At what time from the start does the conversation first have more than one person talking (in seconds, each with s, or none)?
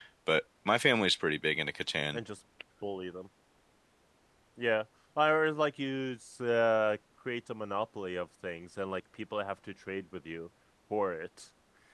none